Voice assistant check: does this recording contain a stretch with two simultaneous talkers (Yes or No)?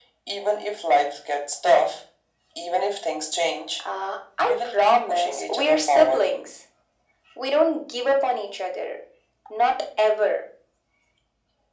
Yes